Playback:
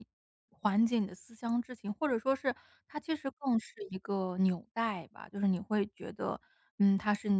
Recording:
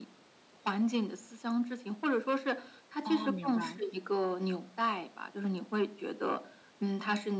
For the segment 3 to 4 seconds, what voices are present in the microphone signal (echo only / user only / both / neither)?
both